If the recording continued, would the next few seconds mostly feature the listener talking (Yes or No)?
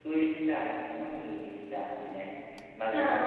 No